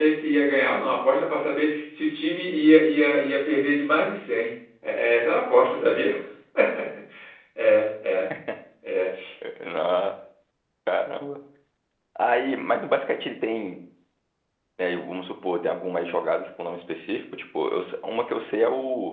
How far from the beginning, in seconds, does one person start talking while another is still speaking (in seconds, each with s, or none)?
none